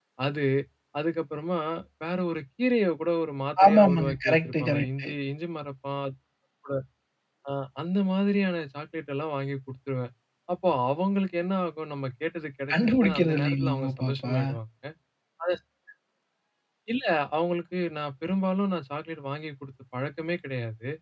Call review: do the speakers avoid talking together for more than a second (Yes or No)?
No